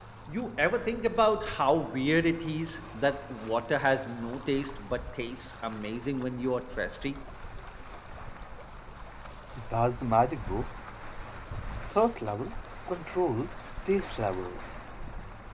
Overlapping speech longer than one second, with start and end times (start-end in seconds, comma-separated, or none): none